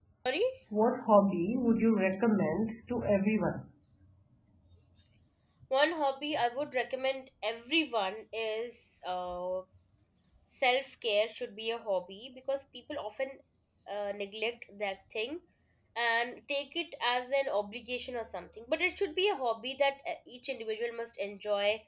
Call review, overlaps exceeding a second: none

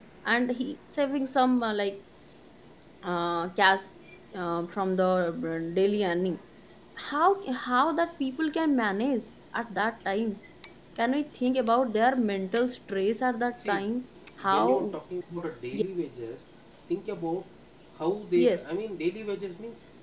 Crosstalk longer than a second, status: none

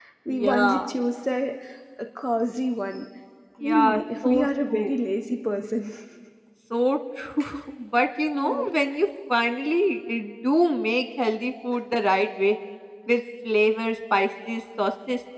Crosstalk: present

